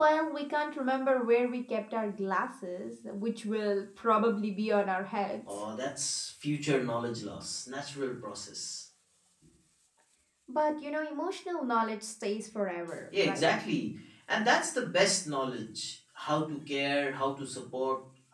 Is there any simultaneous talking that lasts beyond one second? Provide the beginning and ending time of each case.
none

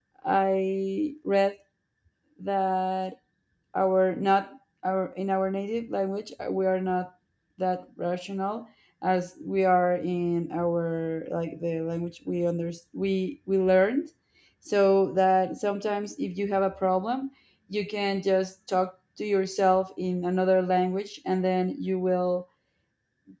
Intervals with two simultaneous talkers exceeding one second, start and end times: none

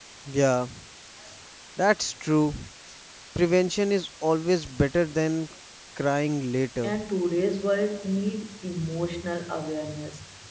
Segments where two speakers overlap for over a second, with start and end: none

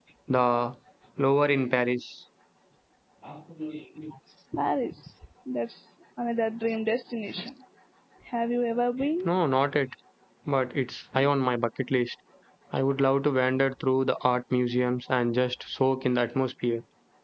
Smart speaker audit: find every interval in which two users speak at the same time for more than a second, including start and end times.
none

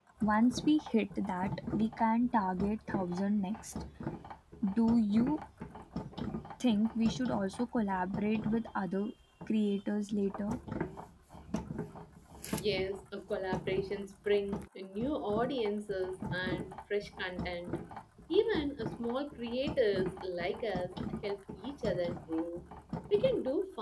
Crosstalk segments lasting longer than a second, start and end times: none

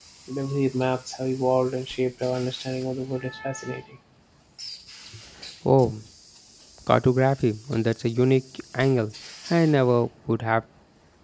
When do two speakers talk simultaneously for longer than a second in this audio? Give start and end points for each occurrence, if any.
none

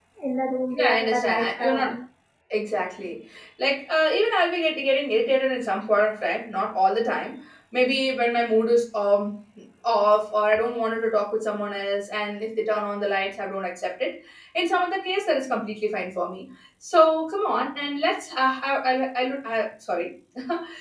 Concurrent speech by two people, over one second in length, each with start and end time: 0.7-1.9

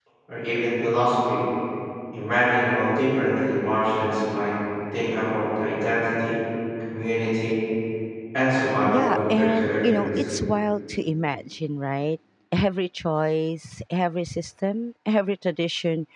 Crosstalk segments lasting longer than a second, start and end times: 8.9-10.2

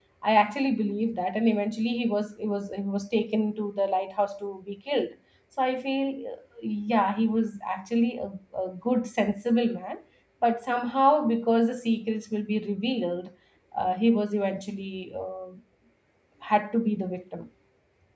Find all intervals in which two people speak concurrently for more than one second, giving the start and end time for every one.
none

